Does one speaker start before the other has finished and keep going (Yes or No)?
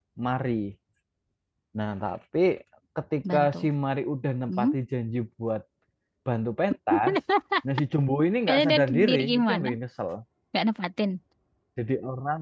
Yes